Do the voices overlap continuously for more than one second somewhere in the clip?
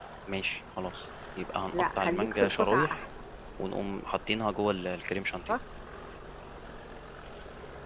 Yes, from 1.7 s

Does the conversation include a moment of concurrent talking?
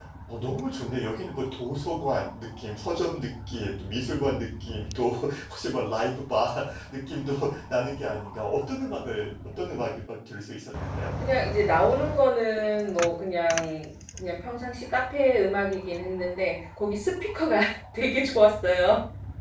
No

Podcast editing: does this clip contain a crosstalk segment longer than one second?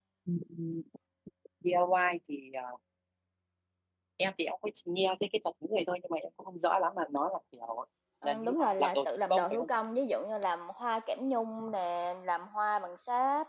Yes, from 8.2 s

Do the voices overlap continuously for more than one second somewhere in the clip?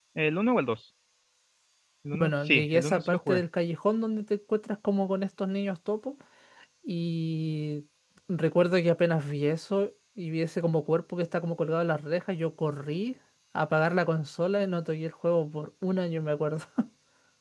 Yes, from 2.2 s

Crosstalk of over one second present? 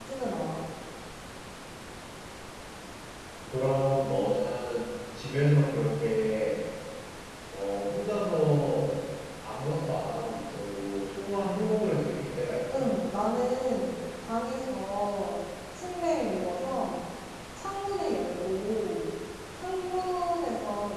No

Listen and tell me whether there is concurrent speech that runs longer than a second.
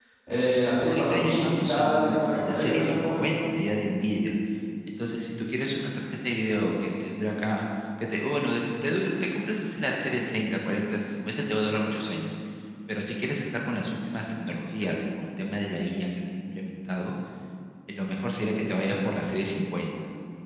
Yes, from 0.9 s

